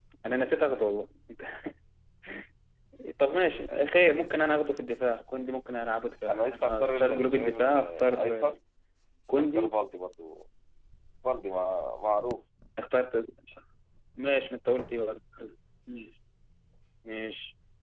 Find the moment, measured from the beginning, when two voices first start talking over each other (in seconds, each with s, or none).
6.3 s